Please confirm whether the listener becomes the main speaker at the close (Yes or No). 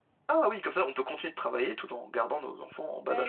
Yes